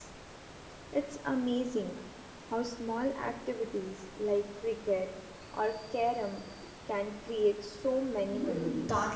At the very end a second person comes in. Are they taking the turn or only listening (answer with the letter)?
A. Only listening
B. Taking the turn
B